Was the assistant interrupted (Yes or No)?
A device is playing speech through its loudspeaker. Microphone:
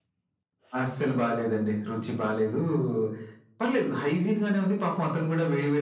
No